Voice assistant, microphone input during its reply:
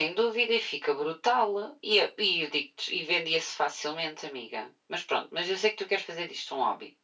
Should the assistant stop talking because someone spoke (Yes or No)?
No